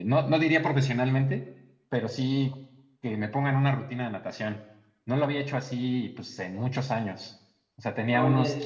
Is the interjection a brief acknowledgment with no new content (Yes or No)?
Yes